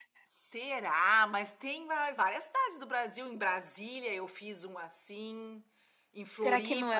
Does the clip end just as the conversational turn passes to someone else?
Yes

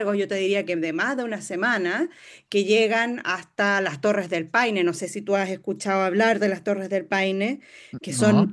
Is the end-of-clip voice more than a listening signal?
No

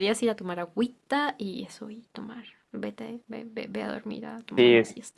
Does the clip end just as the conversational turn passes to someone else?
Yes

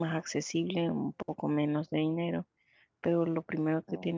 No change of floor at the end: Yes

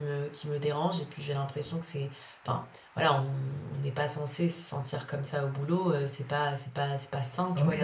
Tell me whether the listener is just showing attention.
No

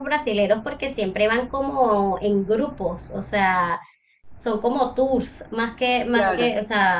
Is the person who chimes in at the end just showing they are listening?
Yes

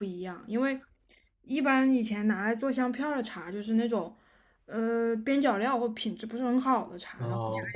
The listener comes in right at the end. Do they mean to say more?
No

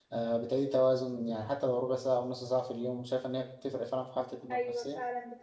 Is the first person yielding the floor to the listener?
Yes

